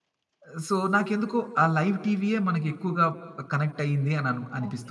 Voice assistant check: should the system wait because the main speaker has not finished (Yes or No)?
No